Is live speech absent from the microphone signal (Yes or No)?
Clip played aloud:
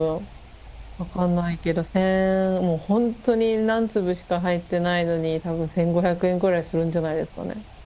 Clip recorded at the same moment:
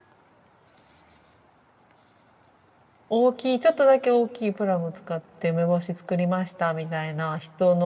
No